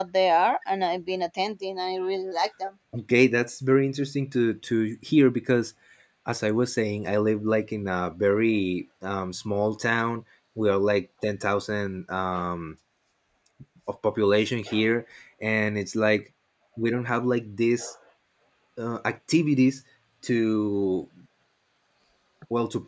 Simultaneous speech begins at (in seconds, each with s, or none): none